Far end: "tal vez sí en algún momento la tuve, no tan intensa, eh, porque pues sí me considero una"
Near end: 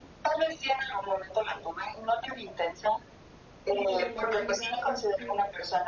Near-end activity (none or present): present